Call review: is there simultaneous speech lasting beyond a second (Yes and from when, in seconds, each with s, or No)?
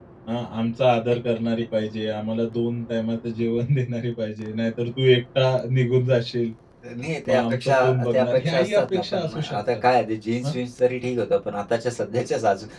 Yes, from 7.3 s